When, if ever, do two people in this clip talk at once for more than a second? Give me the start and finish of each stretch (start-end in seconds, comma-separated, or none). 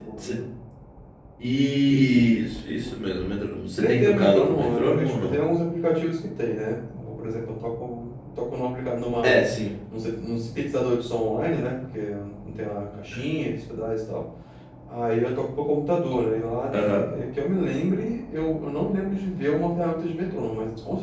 3.8-5.4